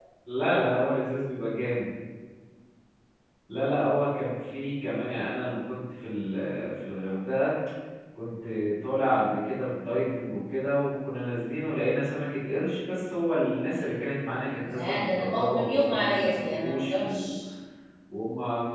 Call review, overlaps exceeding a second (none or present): present